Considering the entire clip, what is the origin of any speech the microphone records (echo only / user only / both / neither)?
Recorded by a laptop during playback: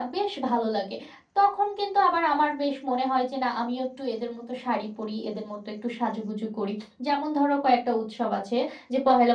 echo only